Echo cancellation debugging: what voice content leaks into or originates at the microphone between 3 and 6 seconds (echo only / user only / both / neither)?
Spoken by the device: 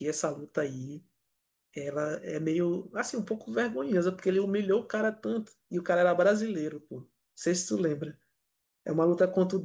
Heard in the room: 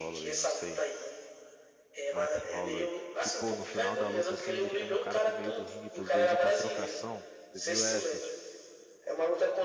both